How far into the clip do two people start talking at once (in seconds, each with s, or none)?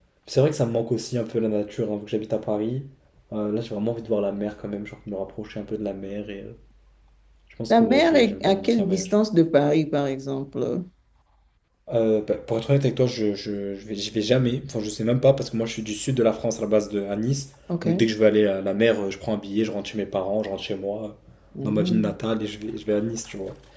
7.7 s